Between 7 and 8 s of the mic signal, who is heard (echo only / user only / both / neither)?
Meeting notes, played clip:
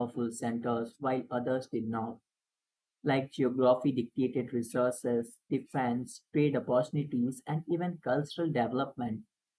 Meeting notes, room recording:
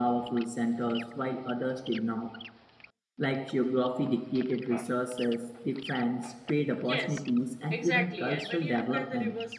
both